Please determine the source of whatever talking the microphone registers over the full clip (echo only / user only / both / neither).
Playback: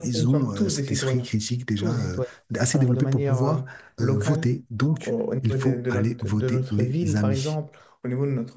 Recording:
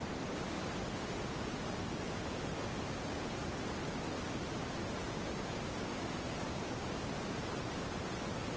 neither